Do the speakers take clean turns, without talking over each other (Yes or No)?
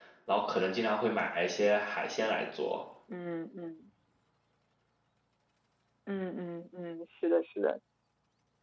Yes